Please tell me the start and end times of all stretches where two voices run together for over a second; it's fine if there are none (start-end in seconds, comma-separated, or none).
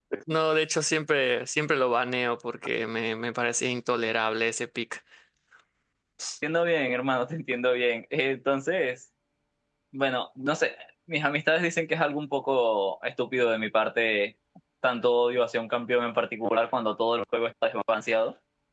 none